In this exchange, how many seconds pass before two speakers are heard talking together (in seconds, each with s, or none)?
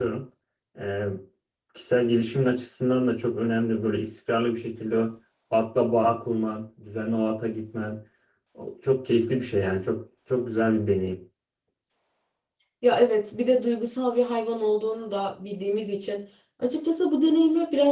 none